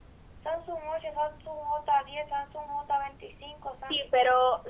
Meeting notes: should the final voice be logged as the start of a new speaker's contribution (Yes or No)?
Yes